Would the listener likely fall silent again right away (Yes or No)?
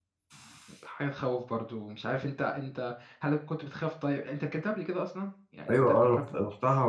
No